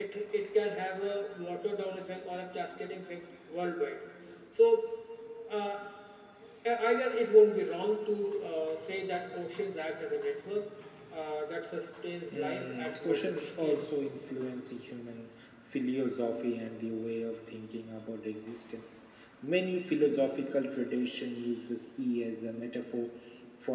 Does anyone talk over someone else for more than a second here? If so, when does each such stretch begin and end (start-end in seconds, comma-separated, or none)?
12.3-13.8